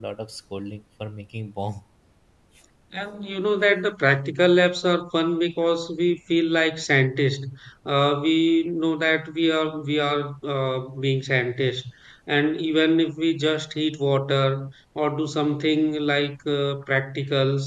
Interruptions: none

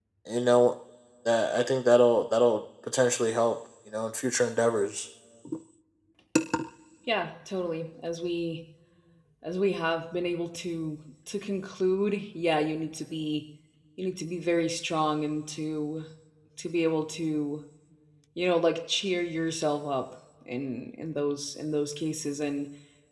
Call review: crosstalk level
none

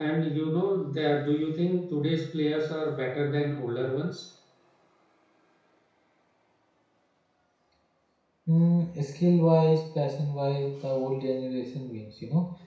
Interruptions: none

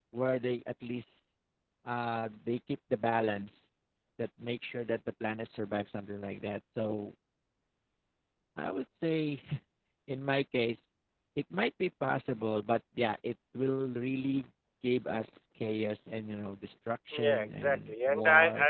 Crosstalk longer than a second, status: present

